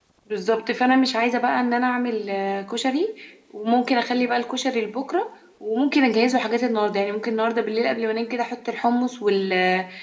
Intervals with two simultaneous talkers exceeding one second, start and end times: none

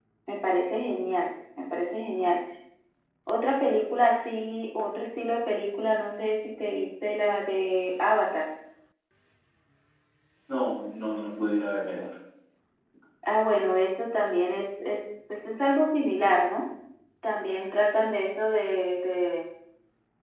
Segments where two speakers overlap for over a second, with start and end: none

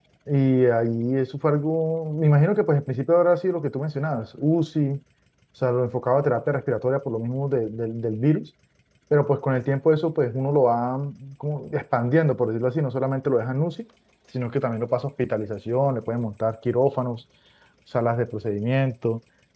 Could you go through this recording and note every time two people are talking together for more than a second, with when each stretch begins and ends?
none

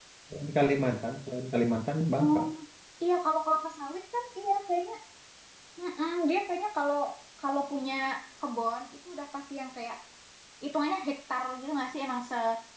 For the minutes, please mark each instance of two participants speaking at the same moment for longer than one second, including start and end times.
none

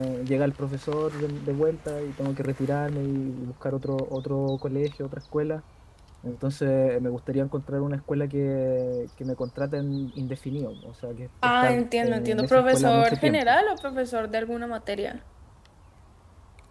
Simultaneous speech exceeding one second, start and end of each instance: 11.4-13.6

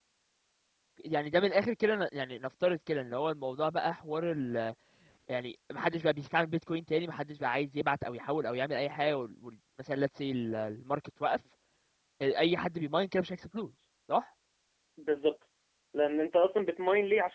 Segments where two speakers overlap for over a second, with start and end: none

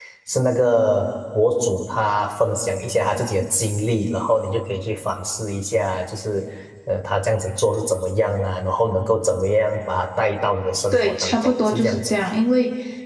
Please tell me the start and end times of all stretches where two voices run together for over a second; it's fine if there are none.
10.9-12.1

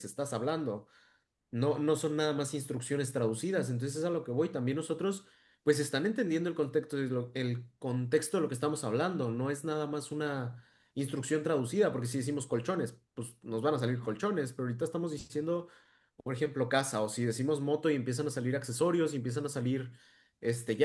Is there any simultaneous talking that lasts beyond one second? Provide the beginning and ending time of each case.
none

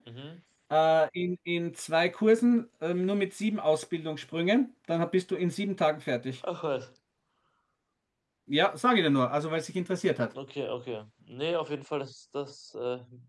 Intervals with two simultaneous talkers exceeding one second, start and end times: none

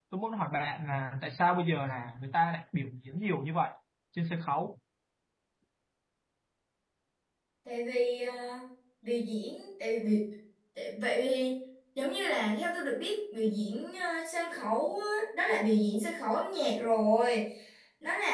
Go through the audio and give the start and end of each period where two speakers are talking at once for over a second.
none

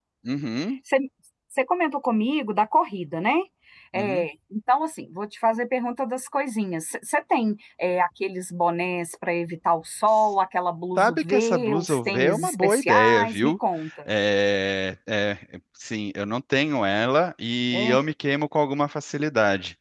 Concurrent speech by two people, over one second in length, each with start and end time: 11.0-13.5

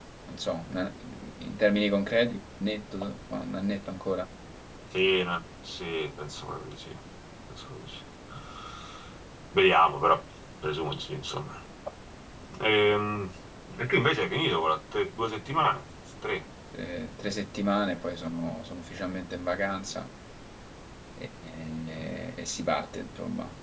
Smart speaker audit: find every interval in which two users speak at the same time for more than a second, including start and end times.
none

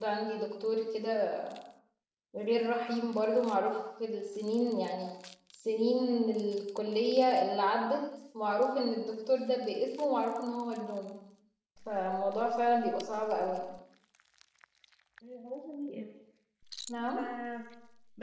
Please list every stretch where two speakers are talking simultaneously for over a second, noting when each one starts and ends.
none

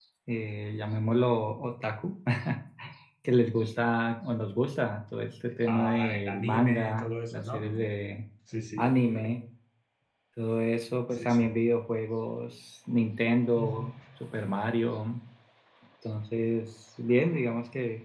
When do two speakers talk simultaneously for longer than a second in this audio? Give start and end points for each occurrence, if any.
5.7-7.9

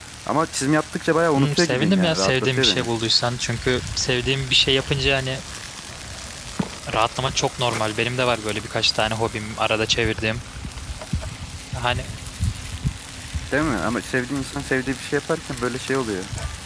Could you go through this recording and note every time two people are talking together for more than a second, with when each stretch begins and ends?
1.4-2.9

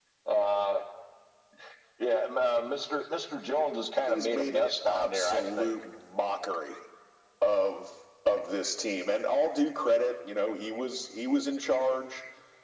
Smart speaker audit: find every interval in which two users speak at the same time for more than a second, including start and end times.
4.0-5.8

